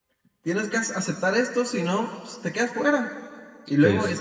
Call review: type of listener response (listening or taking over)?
listening